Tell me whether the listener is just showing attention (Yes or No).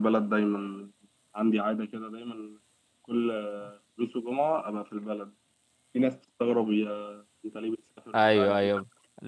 No